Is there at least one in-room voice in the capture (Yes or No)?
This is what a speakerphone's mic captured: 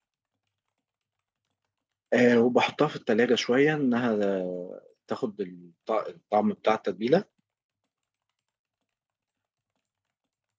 Yes